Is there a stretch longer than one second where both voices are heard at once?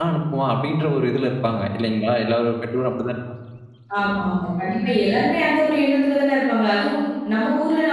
No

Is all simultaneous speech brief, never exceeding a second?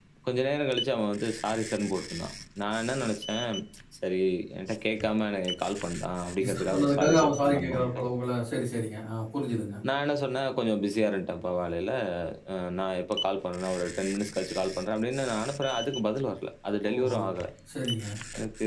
No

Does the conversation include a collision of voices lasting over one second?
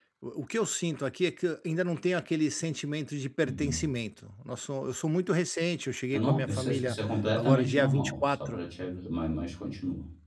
Yes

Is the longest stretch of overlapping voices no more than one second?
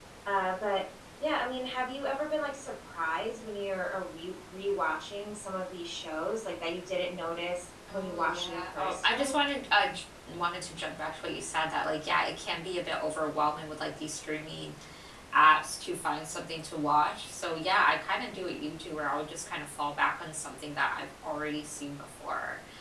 No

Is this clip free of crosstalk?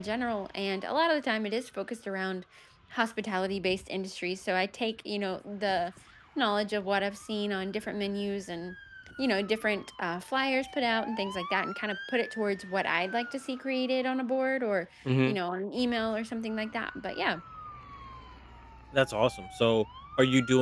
Yes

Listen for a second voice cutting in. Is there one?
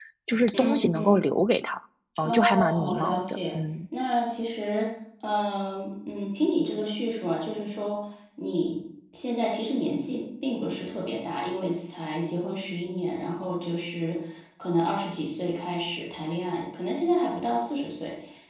Yes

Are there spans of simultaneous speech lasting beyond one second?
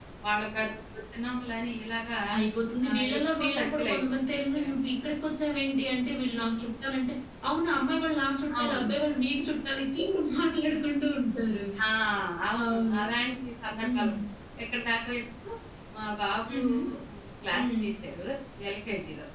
Yes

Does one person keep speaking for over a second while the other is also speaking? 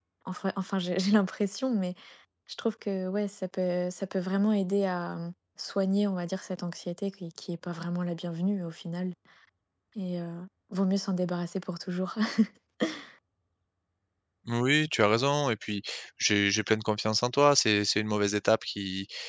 No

